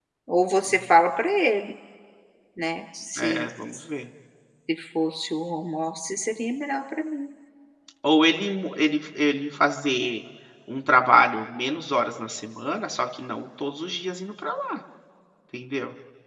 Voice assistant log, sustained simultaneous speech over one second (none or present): none